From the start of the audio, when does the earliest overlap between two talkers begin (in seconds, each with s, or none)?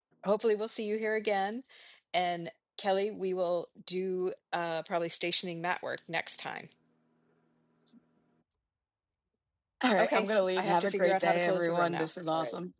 10.0 s